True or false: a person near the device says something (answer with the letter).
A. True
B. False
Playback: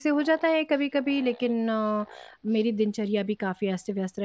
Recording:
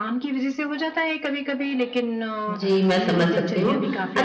A